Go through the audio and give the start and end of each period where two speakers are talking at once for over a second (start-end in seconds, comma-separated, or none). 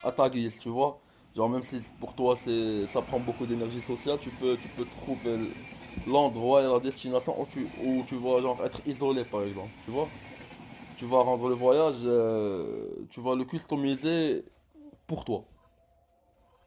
none